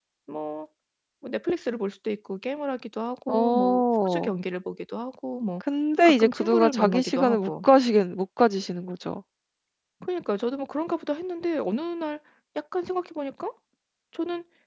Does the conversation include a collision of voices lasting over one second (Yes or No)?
Yes